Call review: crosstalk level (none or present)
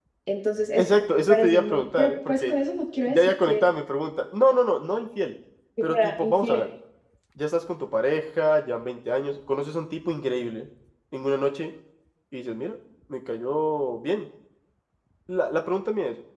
present